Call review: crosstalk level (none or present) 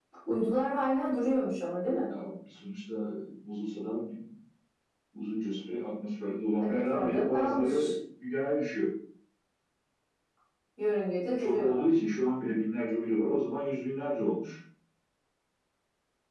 present